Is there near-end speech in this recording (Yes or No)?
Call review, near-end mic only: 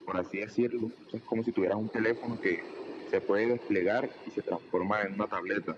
No